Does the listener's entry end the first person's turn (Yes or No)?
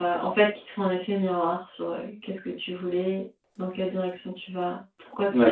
Yes